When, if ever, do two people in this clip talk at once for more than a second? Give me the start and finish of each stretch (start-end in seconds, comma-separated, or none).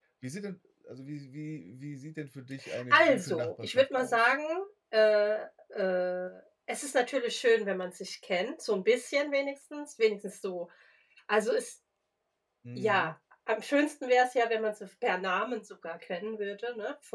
2.9-4.3